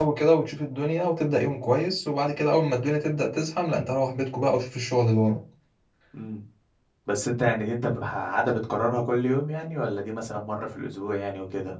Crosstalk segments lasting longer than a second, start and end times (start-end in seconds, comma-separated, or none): none